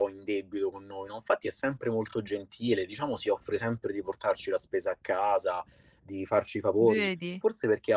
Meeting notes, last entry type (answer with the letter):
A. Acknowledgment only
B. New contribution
A